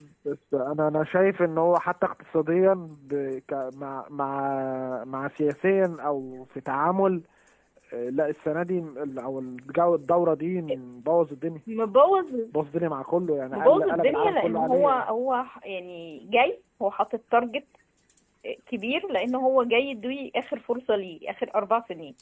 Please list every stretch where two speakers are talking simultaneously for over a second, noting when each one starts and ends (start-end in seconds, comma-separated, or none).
13.5-15.0